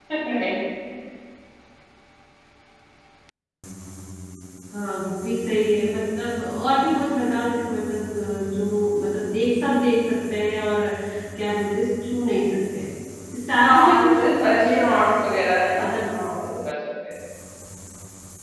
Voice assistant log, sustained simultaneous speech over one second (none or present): present